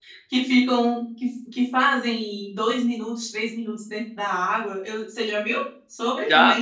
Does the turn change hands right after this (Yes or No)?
Yes